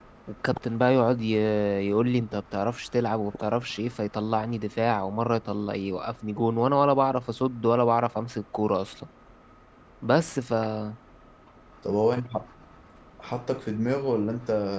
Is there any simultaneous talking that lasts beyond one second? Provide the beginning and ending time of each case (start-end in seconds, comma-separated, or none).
none